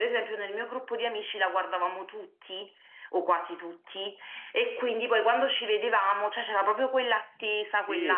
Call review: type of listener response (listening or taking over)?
taking over